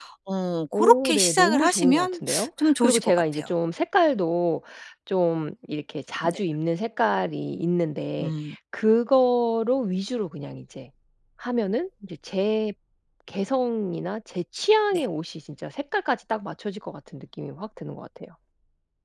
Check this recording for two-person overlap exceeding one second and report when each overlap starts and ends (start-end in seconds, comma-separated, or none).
0.7-3.5